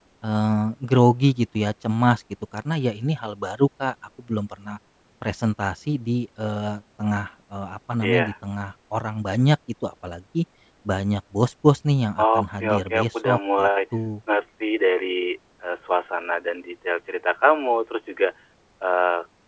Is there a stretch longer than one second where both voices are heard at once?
Yes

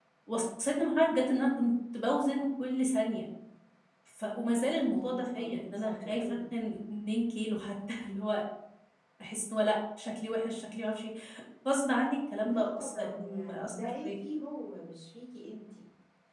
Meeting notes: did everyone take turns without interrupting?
No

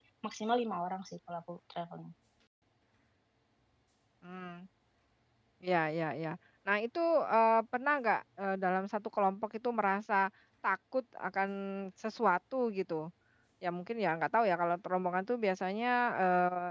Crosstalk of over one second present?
No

